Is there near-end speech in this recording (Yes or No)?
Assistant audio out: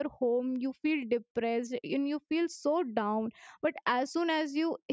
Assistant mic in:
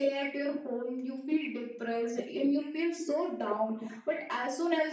No